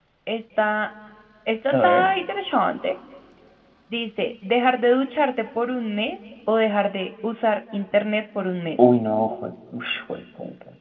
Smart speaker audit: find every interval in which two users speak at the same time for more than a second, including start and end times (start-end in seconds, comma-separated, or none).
none